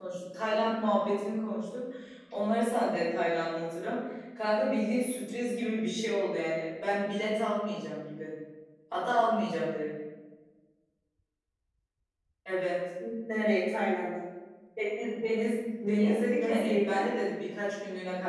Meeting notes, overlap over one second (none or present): present